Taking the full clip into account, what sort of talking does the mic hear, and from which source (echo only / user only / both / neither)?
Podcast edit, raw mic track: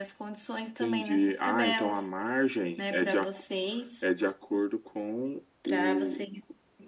echo only